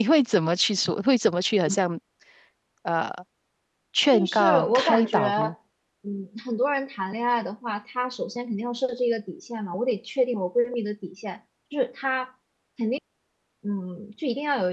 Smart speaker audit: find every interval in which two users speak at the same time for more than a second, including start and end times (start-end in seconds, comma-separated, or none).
4.1-5.5